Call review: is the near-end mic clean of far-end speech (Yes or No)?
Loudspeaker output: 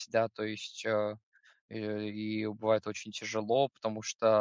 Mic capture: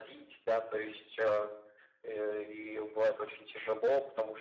No